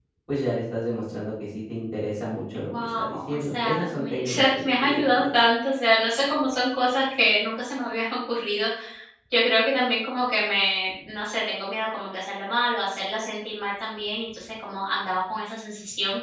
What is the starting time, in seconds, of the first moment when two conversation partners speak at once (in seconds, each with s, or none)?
2.7 s